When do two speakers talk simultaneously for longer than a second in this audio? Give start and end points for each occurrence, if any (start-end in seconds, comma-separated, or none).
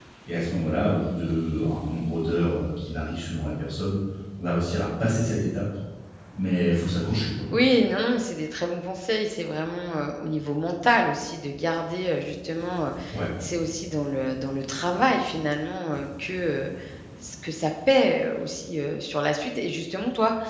none